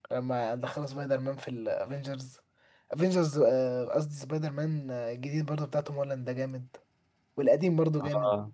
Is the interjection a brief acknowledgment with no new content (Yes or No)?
Yes